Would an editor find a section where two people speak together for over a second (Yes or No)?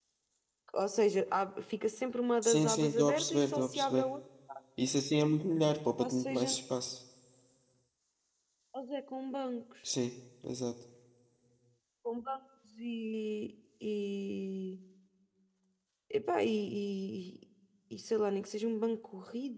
Yes